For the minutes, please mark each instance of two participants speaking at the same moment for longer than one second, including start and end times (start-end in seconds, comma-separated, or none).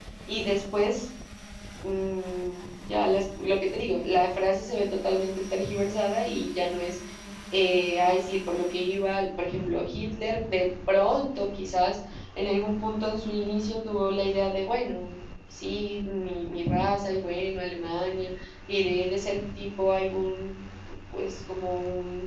none